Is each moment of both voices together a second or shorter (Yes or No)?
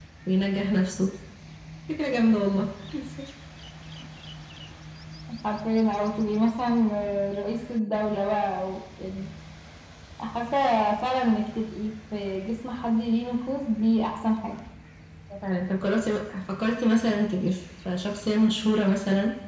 Yes